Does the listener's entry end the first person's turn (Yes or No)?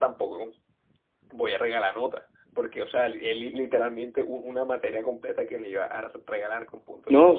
Yes